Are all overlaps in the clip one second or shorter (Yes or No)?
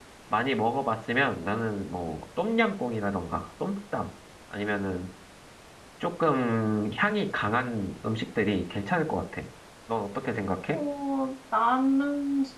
Yes